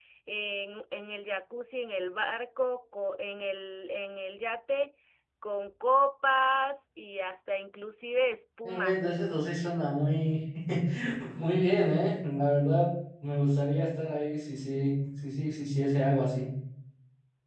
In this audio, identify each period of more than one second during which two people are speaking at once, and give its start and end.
none

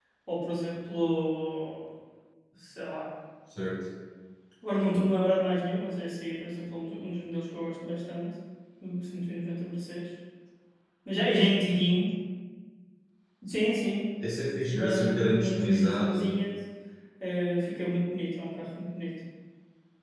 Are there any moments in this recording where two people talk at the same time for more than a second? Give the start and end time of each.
14.7-16.2

